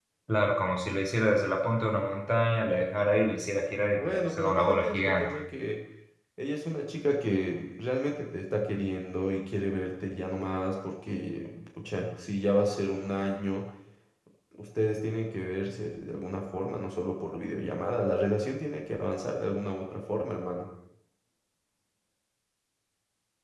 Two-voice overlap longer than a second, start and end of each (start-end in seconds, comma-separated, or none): 4.0-5.3